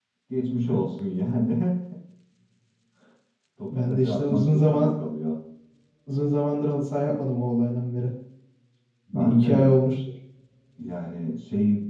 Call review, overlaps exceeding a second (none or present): present